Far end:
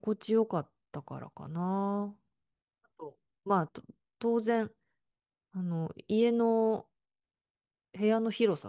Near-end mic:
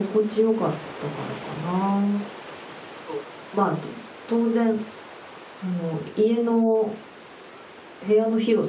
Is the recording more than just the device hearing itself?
No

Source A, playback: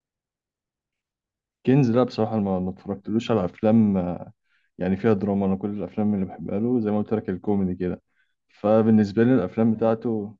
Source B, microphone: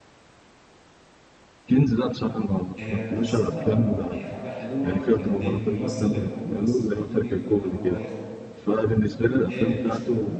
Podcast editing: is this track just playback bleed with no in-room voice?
No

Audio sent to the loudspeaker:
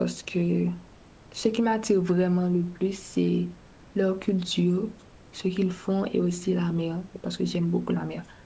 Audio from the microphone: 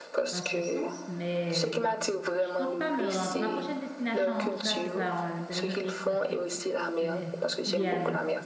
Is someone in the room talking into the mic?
Yes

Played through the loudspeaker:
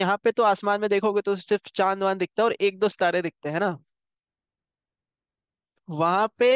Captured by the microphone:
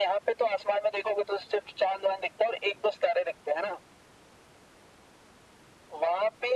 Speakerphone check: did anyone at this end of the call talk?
No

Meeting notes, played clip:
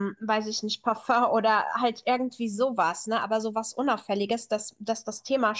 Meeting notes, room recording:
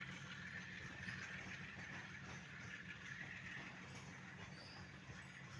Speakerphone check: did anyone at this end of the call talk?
No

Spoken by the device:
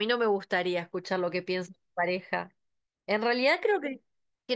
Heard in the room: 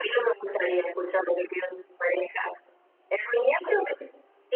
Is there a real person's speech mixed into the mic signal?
No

